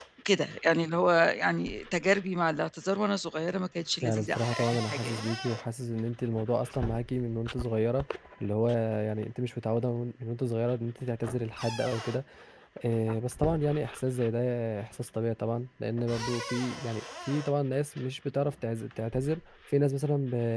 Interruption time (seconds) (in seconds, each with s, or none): 4.0 s